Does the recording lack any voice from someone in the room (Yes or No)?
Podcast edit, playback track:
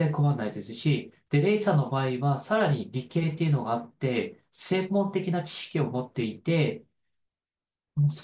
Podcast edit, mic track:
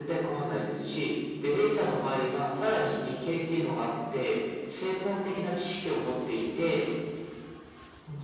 Yes